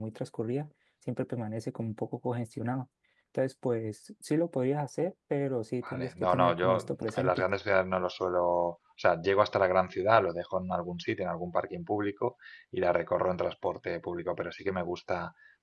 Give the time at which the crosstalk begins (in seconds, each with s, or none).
5.8 s